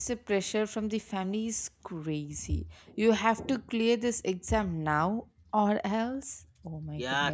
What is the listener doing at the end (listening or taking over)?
taking over